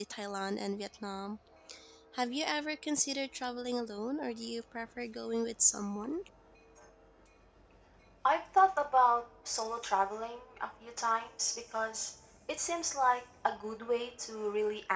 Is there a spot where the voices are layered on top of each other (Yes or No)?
No